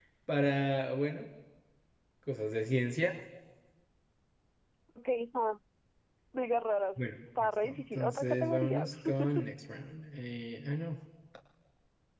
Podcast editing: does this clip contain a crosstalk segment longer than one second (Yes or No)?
Yes